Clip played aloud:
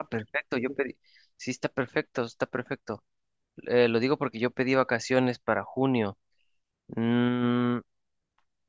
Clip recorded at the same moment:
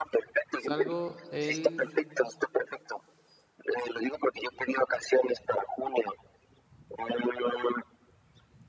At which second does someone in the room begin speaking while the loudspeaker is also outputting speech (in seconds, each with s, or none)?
0.6 s